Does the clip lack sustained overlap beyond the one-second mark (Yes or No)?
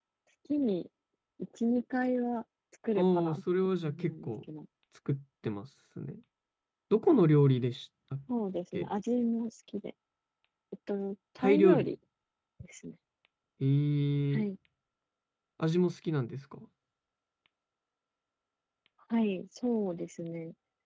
No